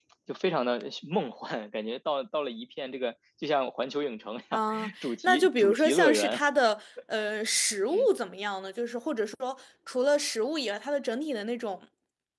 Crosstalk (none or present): present